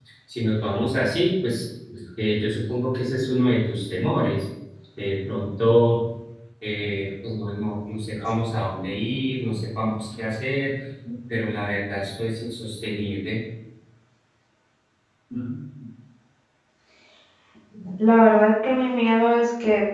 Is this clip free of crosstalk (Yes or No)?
Yes